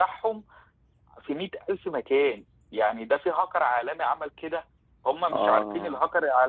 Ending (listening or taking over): listening